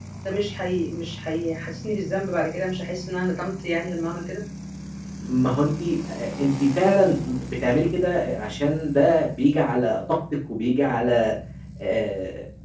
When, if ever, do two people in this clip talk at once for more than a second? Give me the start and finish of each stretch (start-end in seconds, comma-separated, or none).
none